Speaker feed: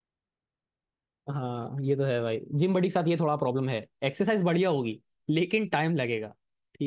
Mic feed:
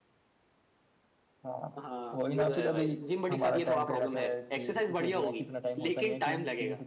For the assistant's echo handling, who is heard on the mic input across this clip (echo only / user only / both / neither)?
both